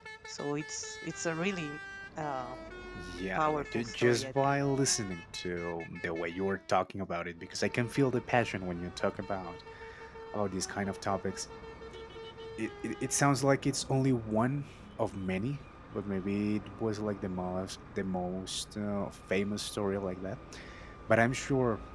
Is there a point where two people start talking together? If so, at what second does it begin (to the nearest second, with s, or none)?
3 s